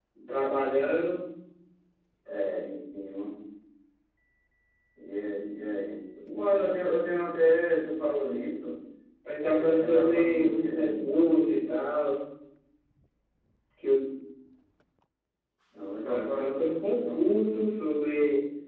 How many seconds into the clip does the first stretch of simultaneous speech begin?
9 s

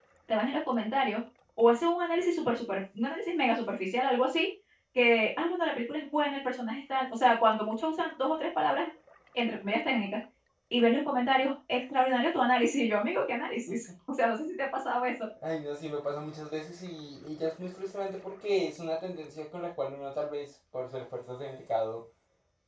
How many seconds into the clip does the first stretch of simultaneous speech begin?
none

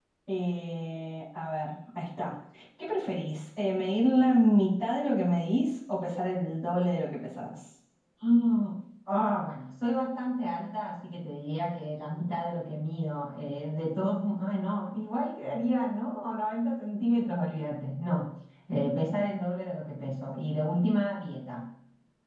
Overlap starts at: none

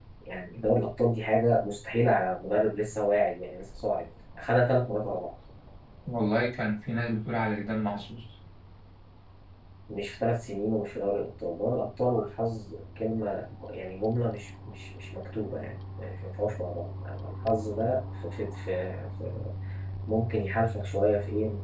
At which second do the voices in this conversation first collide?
none

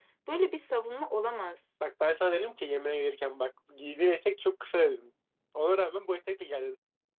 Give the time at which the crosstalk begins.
none

